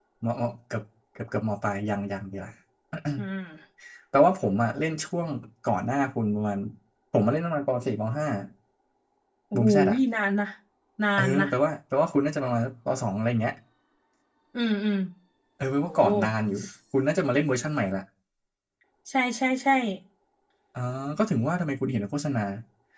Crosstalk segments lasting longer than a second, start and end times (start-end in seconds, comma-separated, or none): none